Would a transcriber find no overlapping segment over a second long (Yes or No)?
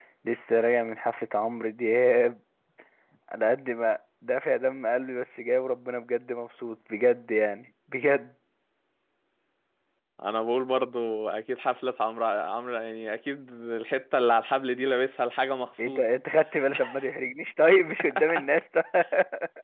Yes